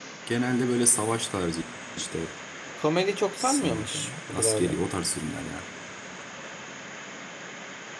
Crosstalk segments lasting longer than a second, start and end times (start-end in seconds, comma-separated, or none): 3.4-4.8